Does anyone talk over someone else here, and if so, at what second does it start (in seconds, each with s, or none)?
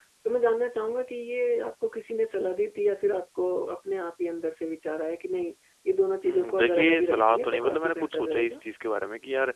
6.2 s